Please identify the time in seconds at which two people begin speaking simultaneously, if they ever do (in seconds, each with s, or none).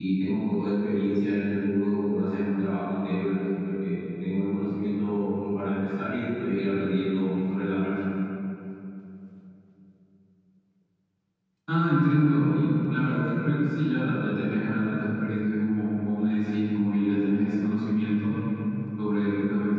none